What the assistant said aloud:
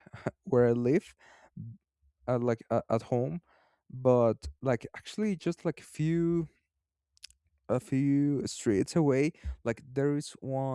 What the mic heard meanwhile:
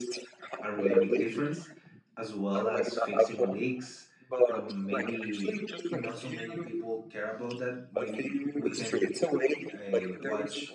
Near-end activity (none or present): present